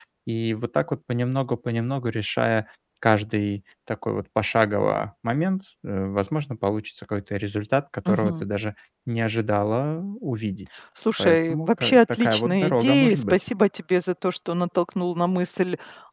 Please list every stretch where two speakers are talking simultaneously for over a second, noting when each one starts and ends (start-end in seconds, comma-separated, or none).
11.2-13.4